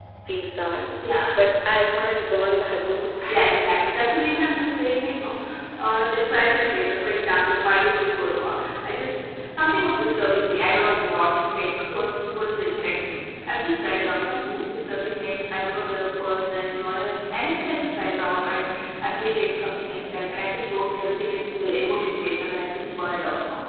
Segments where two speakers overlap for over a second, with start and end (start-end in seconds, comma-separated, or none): none